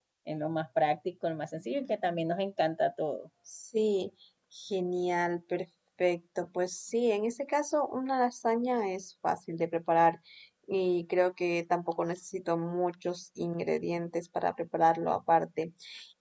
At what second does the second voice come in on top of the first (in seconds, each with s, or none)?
none